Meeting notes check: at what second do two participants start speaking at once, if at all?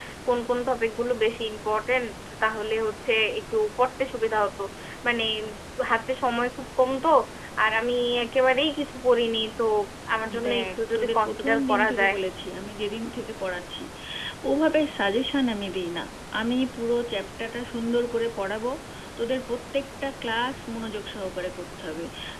10.4 s

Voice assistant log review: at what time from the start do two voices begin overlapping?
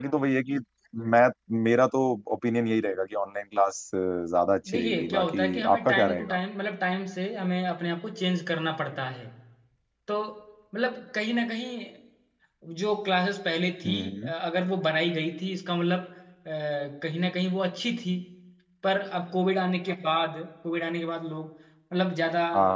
4.7 s

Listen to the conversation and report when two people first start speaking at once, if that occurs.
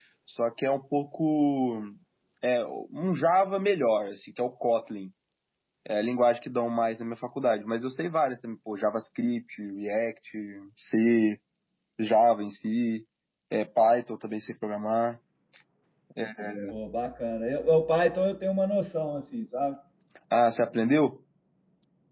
none

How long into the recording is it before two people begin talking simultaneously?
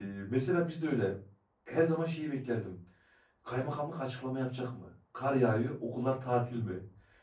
none

